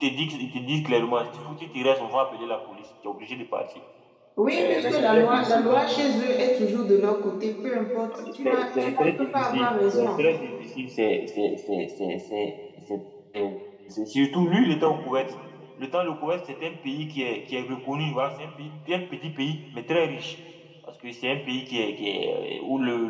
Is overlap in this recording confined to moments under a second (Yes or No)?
No